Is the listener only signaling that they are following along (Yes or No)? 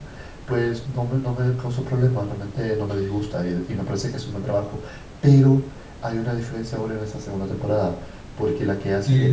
No